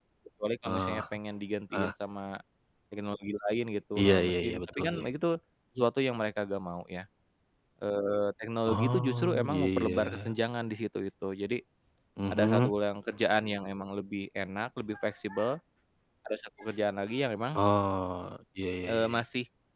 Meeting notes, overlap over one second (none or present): present